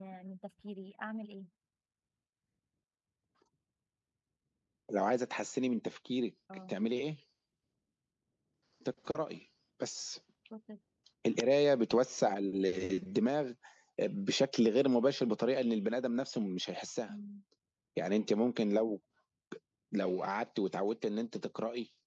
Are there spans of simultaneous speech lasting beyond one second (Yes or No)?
No